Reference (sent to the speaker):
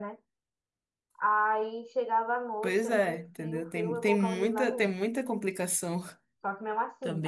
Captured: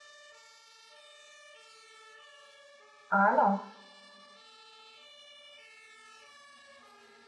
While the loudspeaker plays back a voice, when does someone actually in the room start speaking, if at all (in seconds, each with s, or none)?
3.1 s